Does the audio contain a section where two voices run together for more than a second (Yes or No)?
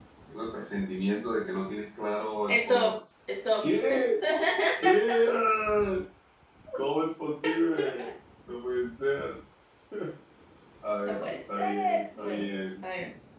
Yes